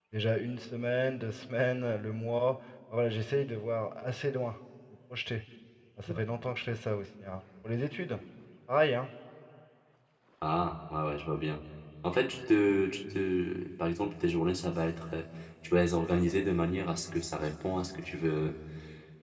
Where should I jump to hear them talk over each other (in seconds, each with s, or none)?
none